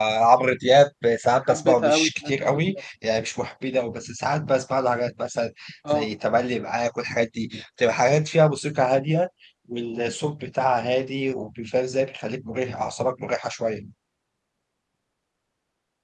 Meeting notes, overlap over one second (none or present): present